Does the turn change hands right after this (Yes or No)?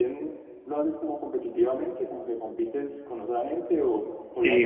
Yes